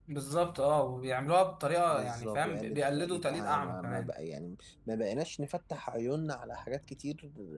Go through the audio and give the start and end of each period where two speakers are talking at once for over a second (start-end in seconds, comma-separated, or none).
1.9-4.1